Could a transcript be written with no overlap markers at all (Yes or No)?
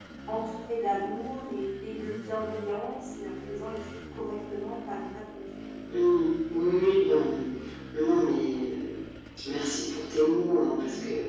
Yes